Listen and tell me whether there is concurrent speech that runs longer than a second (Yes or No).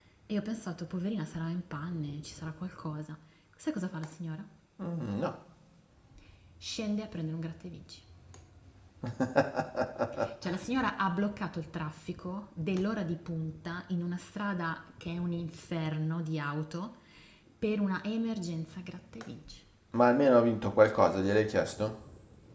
No